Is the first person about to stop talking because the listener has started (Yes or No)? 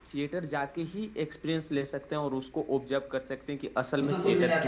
Yes